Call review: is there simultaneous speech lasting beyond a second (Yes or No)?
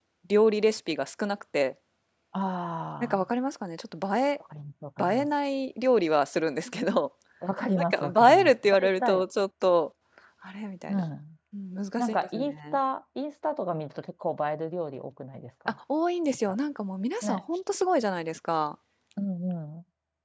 Yes